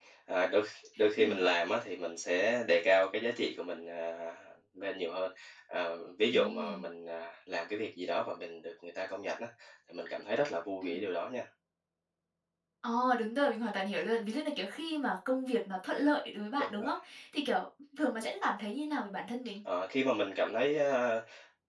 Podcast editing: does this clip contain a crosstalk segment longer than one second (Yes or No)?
No